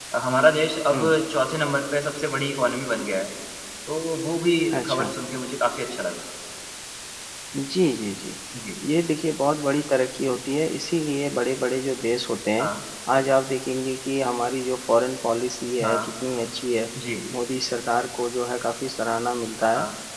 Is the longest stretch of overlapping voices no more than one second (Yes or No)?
Yes